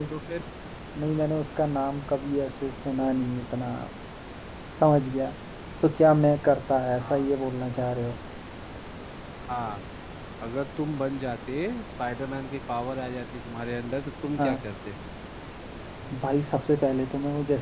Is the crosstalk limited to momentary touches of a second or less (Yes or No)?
Yes